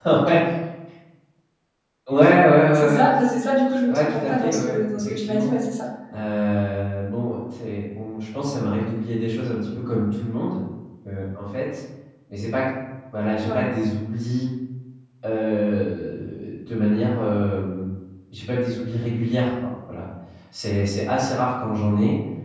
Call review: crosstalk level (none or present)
present